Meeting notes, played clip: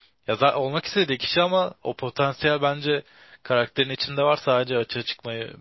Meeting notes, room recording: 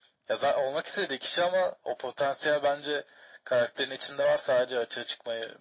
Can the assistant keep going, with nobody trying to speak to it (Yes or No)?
Yes